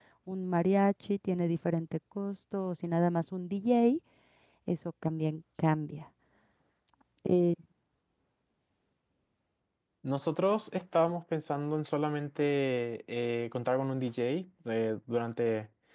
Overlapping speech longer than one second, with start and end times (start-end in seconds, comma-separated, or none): none